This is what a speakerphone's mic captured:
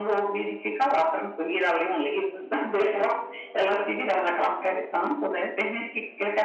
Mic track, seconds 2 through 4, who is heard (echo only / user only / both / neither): echo only